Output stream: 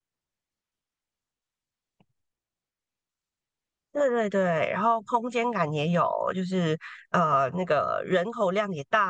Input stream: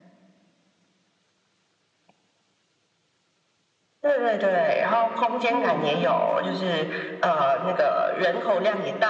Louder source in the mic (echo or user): echo